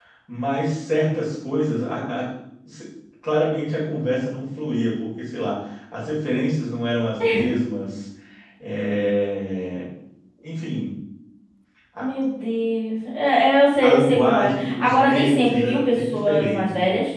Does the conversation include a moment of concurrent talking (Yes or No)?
Yes